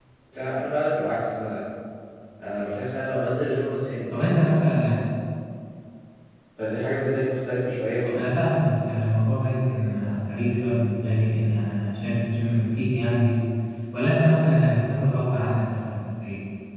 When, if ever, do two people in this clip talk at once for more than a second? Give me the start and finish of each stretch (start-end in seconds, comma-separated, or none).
none